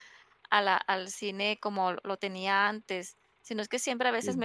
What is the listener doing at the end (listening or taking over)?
listening